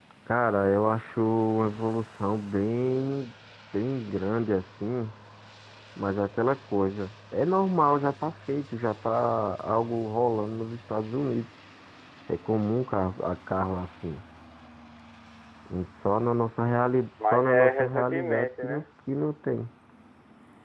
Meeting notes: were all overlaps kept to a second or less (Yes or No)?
No